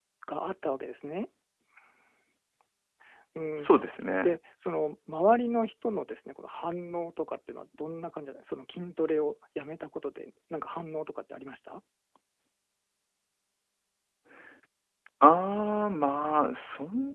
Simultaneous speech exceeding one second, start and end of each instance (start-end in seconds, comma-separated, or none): none